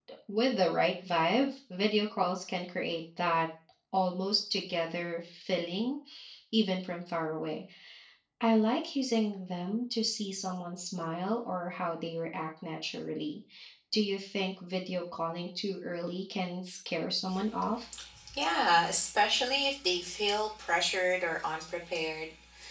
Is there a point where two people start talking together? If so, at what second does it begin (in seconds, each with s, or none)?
none